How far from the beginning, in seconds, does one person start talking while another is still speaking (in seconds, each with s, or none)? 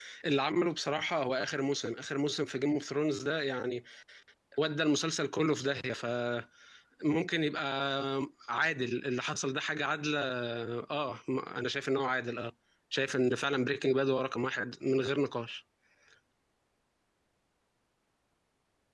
none